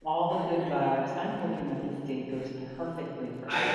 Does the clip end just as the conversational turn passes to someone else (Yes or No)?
Yes